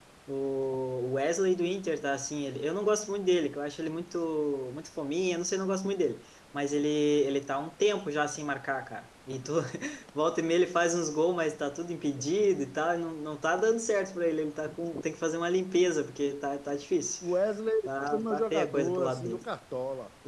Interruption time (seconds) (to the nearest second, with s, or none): 18 s